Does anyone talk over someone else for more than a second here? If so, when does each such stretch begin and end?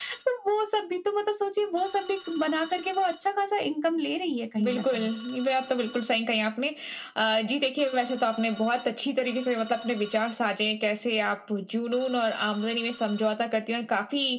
none

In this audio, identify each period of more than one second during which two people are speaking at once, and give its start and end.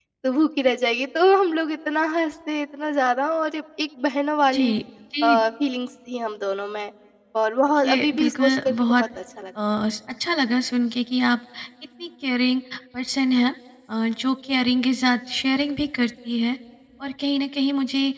7.8-9.0

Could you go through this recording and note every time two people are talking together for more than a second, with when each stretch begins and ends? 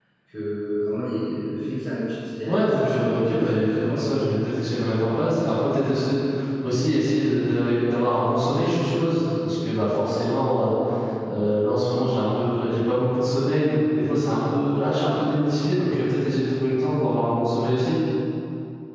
2.5-4.5

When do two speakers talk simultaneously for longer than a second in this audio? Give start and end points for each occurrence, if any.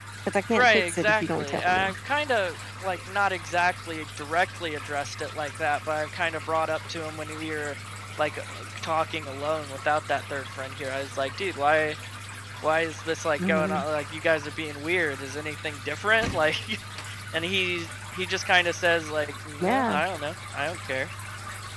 0.5-1.9

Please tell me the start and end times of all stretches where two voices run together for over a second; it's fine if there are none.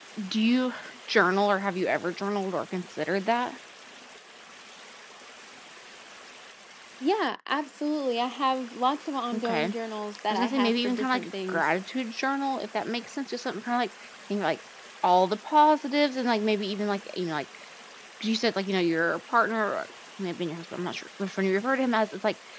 10.3-11.7

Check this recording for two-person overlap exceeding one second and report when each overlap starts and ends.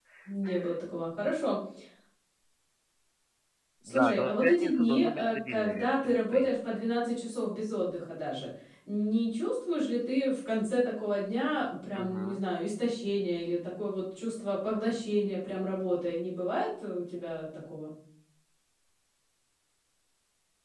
3.9-6.5

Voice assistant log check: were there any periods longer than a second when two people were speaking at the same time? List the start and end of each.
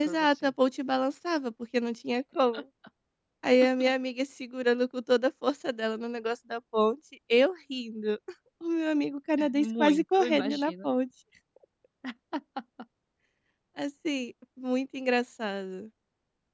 9.5-10.9

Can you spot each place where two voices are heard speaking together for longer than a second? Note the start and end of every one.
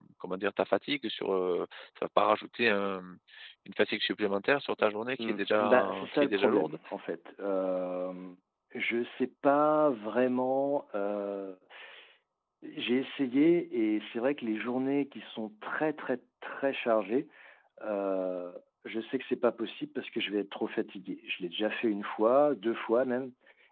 5.2-6.8

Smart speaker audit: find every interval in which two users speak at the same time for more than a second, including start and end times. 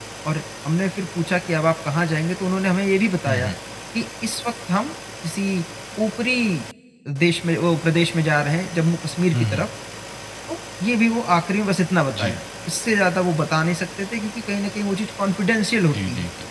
none

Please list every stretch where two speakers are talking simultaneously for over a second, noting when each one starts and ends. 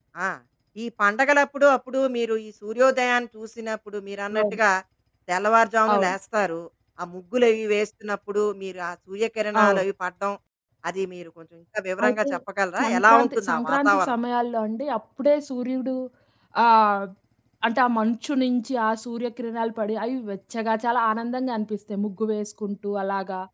12.8-14.1

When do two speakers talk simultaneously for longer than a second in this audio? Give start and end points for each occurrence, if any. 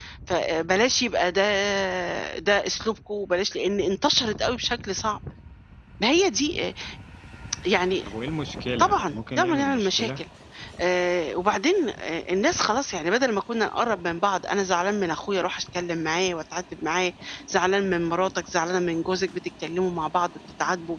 8.8-10.1

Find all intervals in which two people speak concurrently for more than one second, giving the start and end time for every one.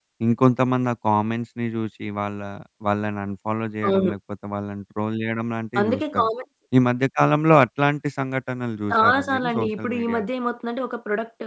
8.9-10.3

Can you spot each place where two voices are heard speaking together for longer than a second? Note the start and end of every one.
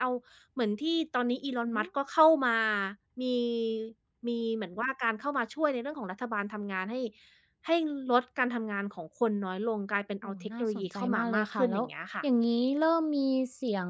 10.2-11.8

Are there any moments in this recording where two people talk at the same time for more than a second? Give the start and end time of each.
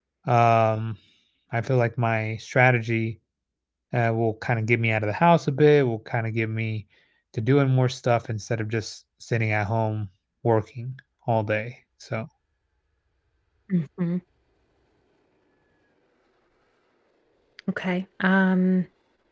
none

